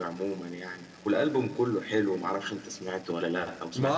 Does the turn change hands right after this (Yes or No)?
Yes